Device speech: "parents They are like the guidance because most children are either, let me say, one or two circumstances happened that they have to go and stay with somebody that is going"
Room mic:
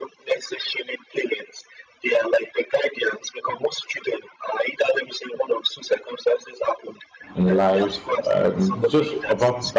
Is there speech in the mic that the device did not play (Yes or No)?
Yes